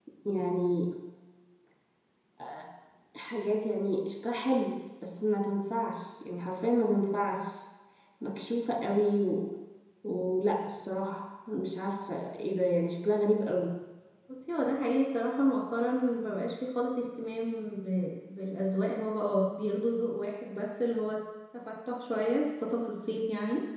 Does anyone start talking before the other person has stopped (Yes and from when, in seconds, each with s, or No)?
No